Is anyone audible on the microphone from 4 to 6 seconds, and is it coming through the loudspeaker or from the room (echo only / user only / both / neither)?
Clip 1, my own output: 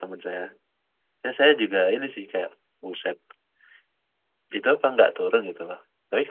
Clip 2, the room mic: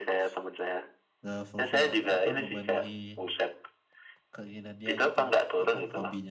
both